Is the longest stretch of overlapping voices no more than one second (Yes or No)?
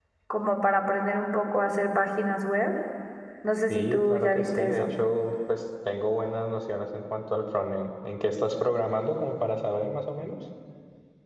No